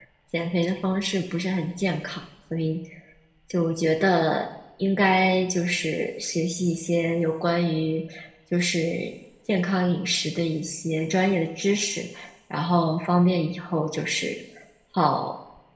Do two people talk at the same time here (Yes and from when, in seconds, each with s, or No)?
No